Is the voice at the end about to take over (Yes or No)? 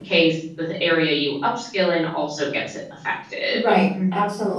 Yes